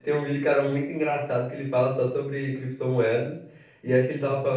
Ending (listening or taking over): listening